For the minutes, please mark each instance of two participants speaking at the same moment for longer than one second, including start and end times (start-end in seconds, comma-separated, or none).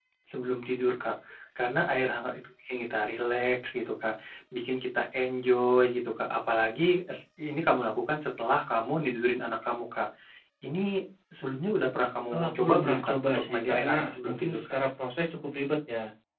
12.3-14.6